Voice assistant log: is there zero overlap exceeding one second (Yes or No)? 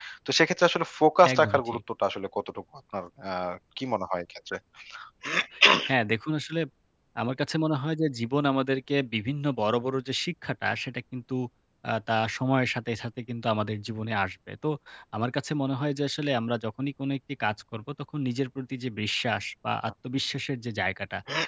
Yes